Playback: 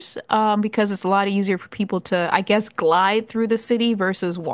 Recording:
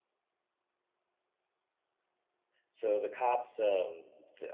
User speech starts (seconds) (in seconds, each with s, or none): 2.7 s